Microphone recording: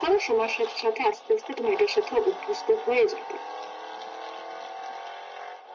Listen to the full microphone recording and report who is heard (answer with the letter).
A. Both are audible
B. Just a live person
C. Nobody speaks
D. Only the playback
D